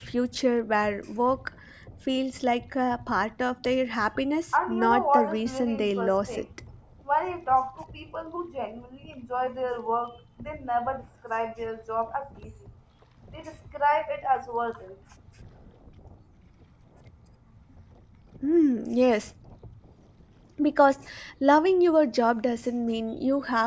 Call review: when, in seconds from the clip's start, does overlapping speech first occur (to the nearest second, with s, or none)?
5 s